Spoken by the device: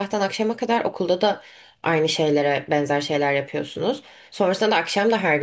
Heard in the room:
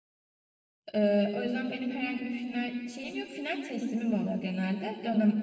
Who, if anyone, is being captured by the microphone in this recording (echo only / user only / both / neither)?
user only